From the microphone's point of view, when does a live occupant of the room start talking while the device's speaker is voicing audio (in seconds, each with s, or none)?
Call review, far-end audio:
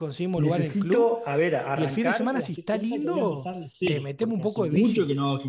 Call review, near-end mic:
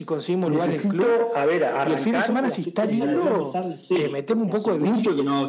2.9 s